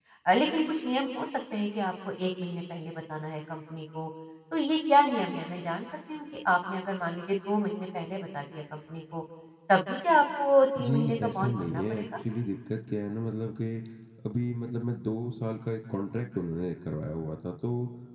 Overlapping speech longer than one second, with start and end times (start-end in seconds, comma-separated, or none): 10.8-12.0